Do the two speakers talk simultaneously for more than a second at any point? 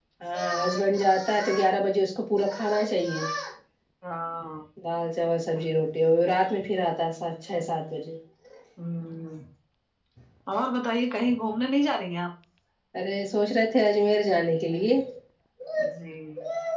No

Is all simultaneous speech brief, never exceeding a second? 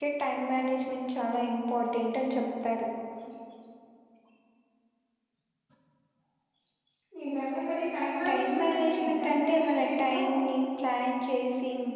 No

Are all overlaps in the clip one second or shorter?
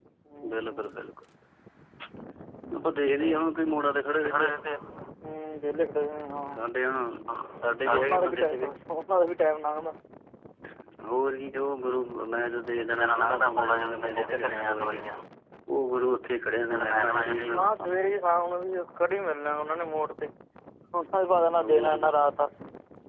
No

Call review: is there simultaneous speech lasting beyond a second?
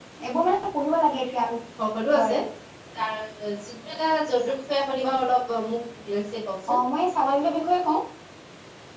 No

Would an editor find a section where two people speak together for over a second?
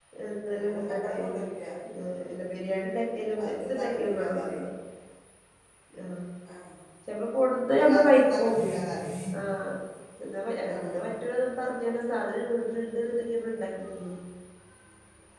Yes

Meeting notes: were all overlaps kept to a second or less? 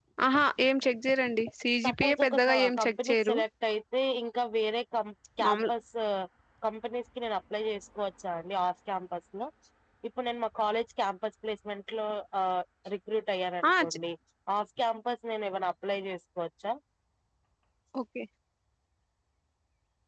No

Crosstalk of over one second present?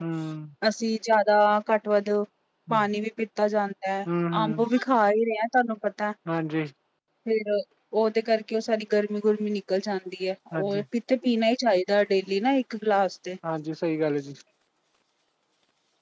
No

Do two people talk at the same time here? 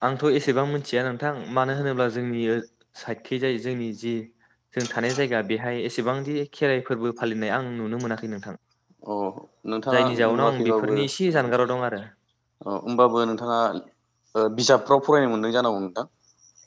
Yes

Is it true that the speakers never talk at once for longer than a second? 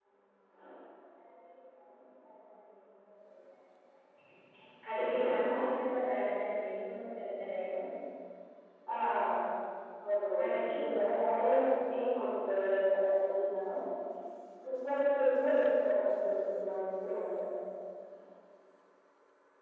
Yes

